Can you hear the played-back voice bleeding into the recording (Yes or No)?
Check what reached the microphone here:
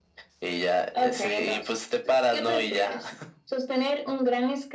Yes